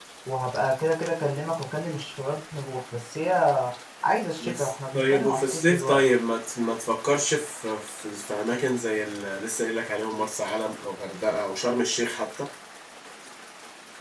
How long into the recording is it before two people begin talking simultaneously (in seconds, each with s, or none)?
4.4 s